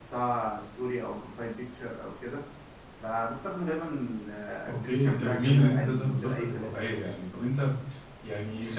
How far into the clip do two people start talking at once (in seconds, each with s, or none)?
4.7 s